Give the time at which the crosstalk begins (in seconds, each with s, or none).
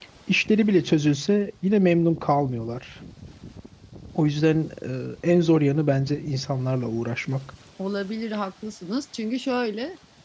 none